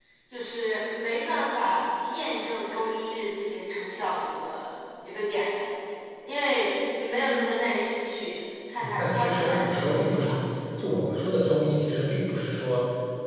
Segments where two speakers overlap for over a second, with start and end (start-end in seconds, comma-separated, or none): 8.8-10.4